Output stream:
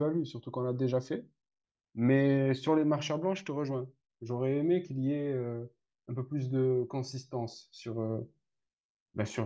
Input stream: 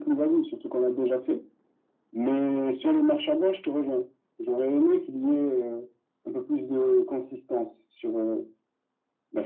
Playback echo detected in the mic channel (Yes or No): Yes